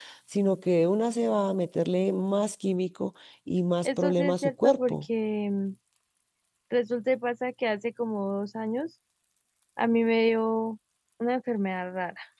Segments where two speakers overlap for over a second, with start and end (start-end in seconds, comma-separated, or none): 3.9-5.0